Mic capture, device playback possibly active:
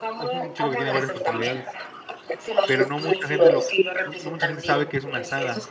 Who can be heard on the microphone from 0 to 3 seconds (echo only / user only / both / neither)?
both